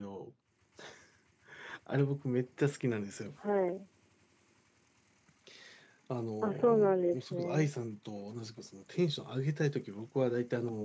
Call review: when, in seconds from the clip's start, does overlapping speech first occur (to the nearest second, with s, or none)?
6 s